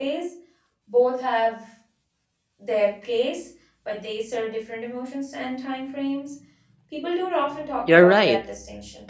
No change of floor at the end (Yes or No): No